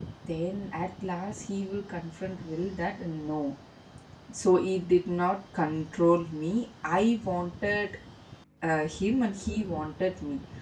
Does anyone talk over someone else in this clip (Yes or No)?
No